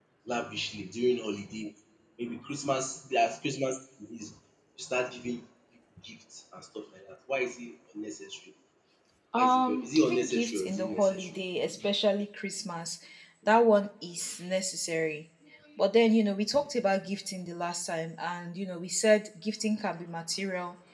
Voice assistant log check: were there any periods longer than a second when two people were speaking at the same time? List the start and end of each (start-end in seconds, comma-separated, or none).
9.4-11.3